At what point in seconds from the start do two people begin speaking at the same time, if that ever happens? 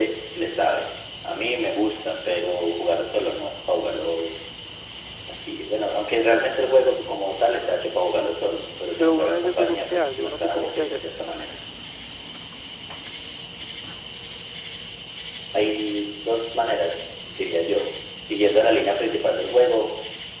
9.0 s

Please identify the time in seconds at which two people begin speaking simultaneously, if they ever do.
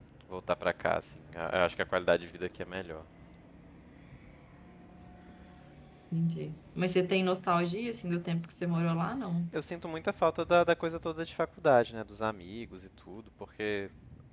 none

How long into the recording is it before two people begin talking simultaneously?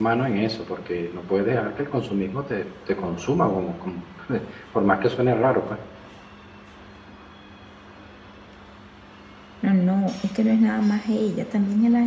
none

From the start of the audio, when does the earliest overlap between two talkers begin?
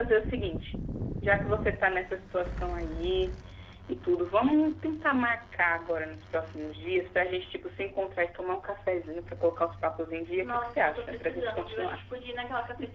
10.4 s

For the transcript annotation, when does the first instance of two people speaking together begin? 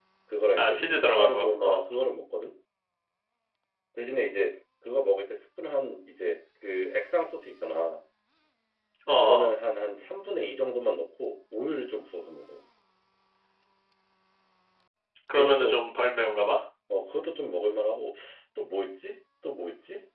0.6 s

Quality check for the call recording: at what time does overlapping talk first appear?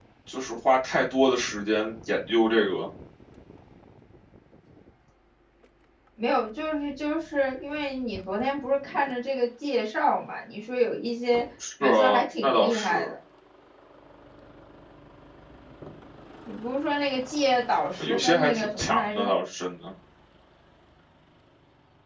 11.8 s

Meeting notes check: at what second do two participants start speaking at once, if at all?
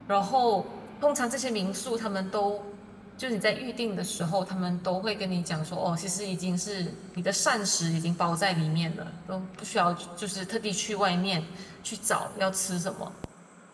none

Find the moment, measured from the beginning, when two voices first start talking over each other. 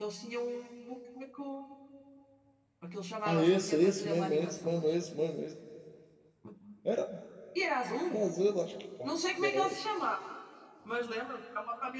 3.3 s

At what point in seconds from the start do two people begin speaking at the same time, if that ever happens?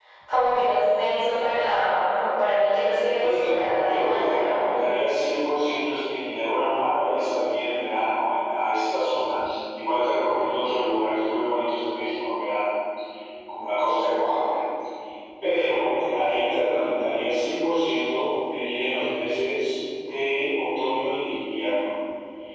3.2 s

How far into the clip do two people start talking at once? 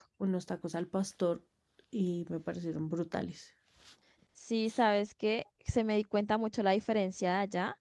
none

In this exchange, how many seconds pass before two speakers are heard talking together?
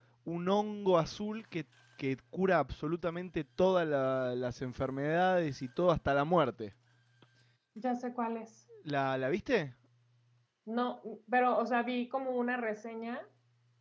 none

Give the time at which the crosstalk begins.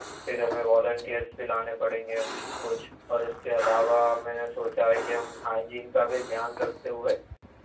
none

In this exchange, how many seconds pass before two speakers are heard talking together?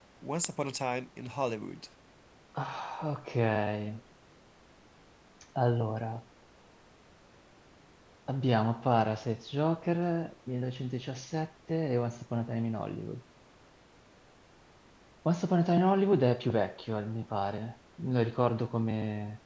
none

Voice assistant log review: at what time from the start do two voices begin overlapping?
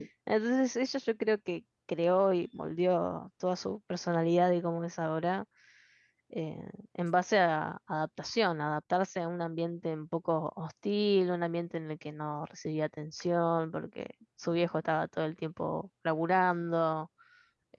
none

